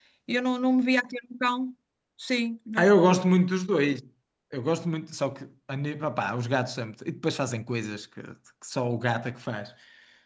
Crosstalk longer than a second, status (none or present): none